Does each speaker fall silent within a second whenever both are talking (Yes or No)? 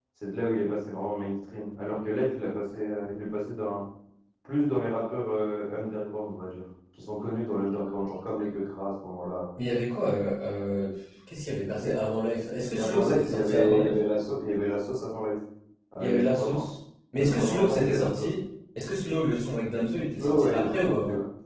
No